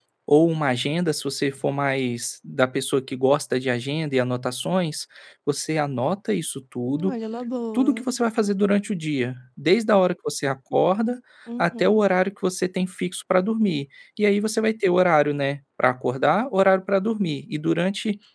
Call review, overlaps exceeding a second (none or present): none